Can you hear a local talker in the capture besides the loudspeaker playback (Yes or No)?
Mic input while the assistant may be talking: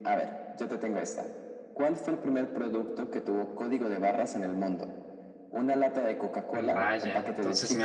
Yes